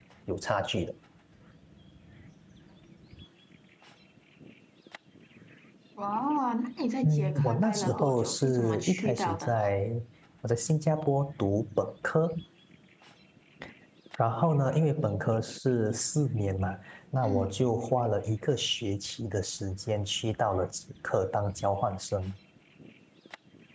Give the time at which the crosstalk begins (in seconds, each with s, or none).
7.0 s